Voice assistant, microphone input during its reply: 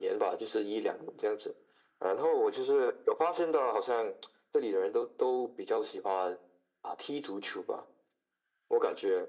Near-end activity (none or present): none